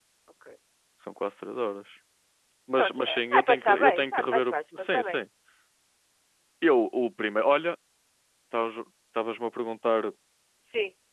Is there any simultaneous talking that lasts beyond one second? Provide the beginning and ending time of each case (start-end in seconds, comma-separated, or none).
2.8-5.2